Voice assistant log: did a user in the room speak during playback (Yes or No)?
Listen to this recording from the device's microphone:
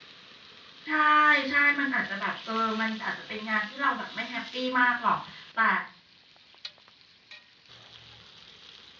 Yes